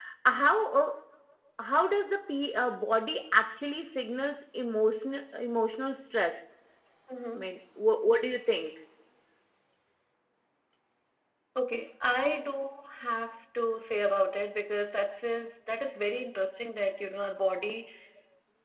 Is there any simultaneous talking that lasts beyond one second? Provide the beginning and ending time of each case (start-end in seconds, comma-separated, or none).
none